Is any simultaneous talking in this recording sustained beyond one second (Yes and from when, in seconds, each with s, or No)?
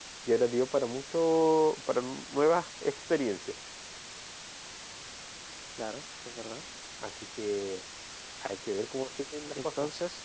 No